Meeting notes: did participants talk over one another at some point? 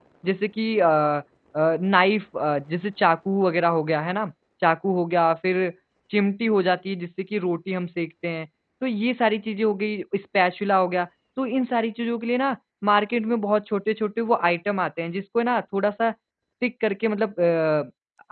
No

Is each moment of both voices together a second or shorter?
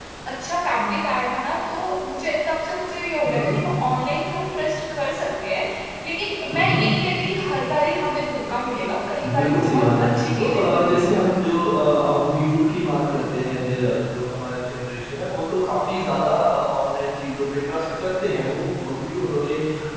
No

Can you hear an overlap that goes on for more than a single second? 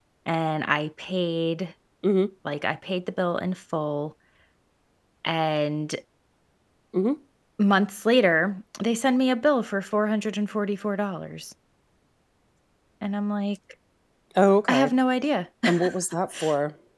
No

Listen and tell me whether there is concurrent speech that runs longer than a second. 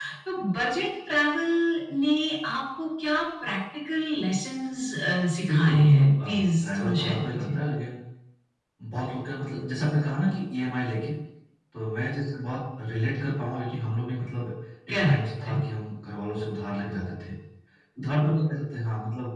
Yes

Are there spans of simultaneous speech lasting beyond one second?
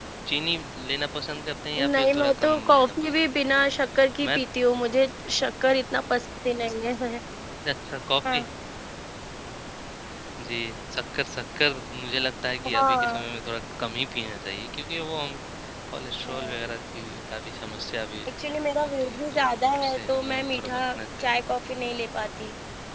Yes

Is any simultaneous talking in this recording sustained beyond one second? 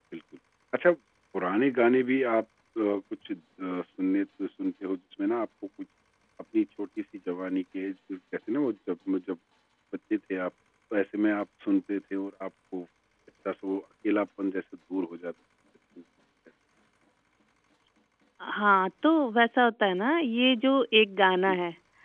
No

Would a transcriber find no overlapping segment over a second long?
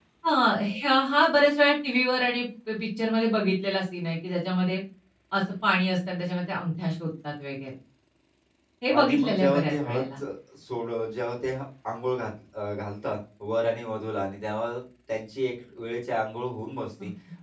No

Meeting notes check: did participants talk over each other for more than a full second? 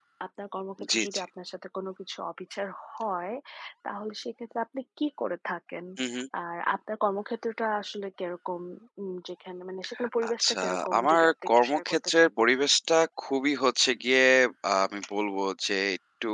Yes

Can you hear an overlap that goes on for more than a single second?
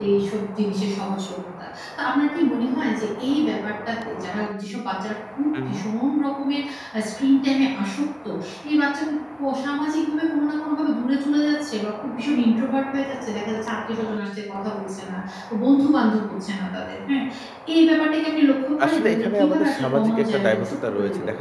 Yes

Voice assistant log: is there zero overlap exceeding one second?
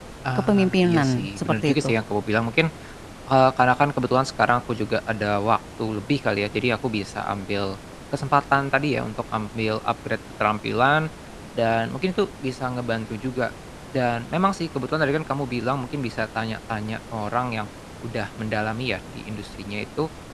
No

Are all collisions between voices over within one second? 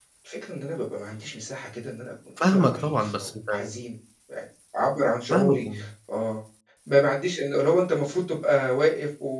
No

